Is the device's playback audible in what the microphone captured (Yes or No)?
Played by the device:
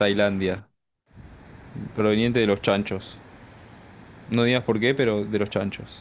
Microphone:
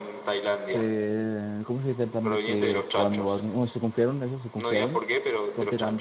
Yes